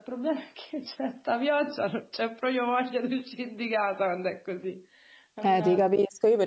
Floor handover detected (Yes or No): Yes